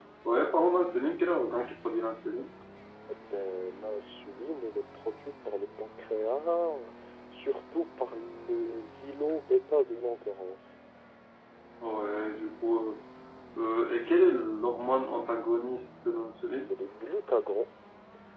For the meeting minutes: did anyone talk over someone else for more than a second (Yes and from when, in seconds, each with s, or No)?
No